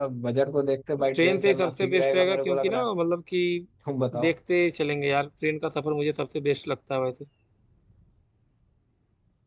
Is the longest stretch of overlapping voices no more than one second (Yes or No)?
No